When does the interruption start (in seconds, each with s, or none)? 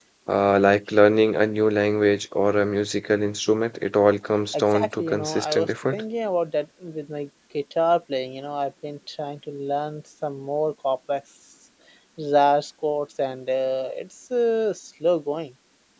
4.5 s